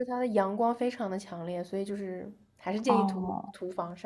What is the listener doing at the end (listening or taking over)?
taking over